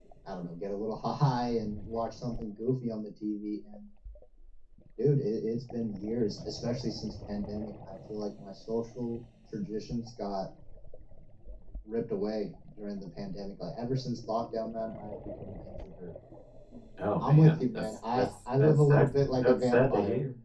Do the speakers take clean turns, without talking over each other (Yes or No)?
No